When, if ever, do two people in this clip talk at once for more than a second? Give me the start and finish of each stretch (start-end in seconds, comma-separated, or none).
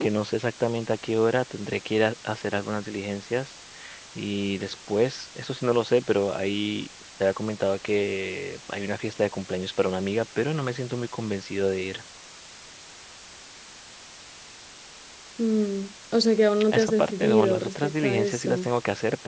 16.7-18.7